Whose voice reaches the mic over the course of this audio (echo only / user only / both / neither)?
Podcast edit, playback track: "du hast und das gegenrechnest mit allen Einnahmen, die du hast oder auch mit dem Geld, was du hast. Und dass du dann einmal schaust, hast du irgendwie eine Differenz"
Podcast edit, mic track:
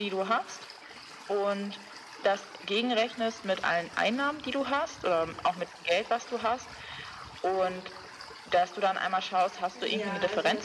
both